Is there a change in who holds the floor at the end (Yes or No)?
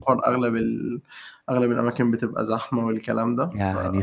Yes